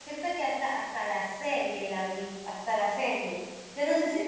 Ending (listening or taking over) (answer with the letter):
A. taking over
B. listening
A